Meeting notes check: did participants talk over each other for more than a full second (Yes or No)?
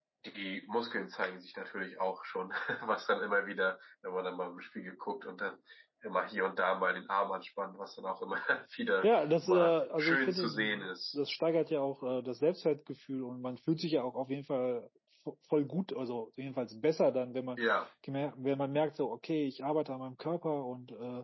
Yes